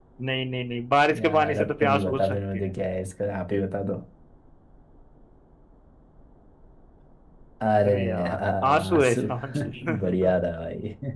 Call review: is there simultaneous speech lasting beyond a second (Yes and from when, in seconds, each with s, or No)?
Yes, from 1.2 s